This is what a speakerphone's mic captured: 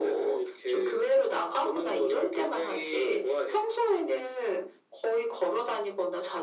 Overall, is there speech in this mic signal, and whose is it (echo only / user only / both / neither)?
echo only